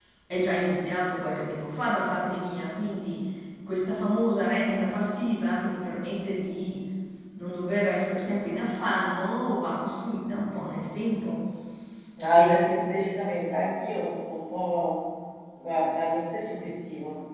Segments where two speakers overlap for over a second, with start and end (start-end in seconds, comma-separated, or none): none